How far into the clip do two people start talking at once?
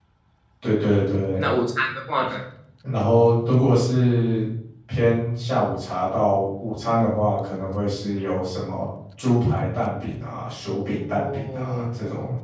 10.7 s

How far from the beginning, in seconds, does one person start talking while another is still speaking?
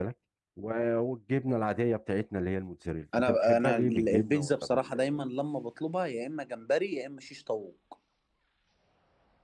3.1 s

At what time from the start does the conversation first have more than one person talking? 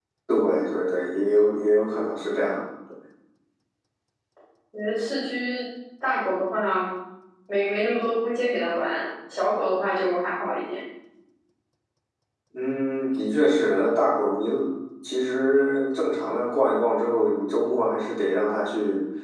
none

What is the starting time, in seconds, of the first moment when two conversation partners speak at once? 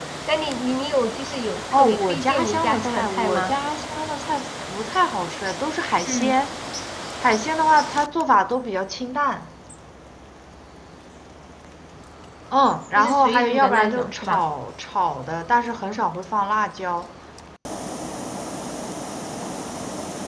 1.7 s

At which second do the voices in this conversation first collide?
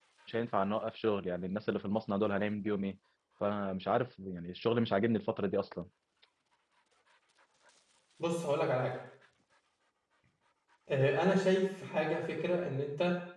none

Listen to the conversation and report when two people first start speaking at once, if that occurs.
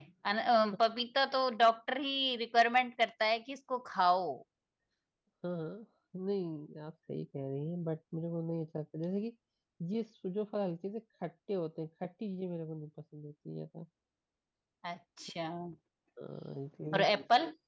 none

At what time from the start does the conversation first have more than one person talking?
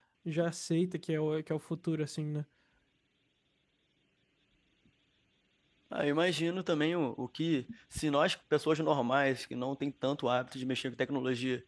none

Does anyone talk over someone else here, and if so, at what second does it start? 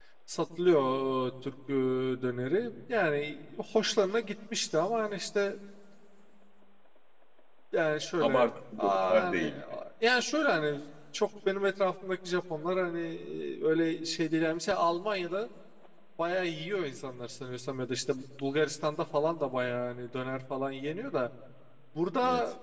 8.2 s

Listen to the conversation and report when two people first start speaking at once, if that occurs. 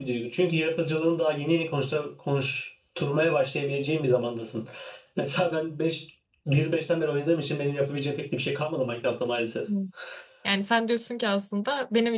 none

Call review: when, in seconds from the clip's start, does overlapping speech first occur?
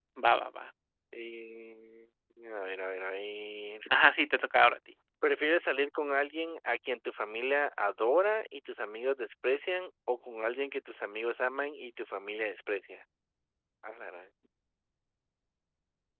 none

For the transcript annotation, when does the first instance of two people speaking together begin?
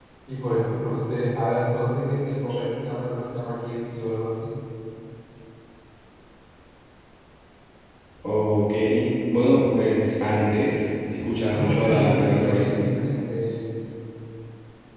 11.5 s

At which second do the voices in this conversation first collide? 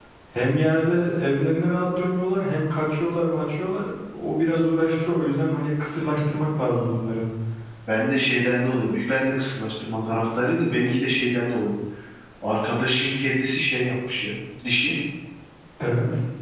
none

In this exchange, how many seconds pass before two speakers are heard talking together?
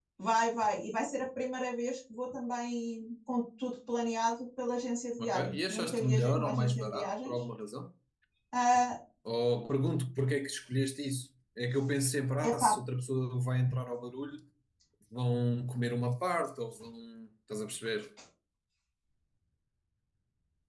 5.2 s

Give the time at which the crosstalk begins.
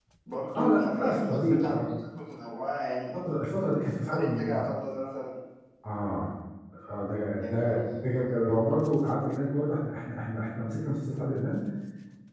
0.6 s

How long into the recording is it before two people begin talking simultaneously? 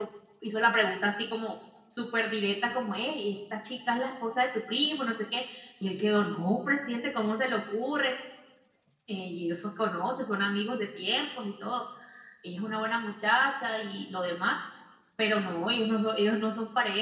none

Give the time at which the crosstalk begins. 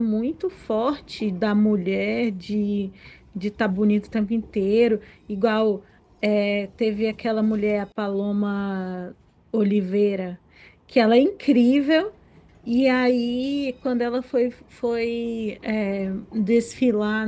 none

